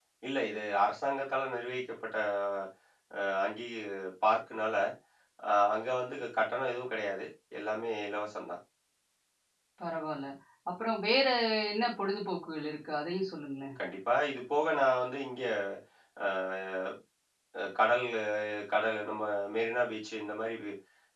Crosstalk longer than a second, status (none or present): none